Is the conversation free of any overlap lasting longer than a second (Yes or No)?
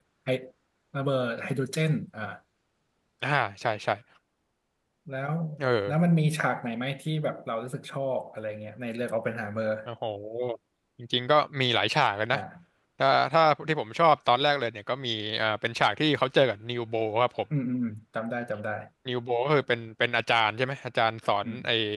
Yes